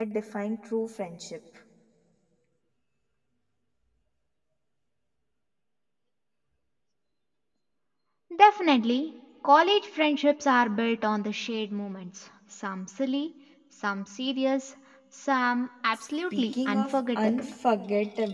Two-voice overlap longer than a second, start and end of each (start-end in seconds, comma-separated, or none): 16.3-17.5